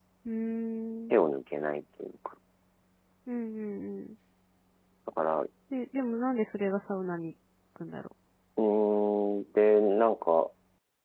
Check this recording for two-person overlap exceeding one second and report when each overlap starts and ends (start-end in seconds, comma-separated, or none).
none